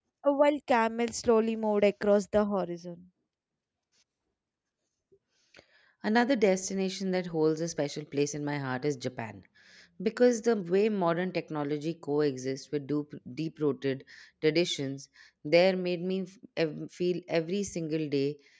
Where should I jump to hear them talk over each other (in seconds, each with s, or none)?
none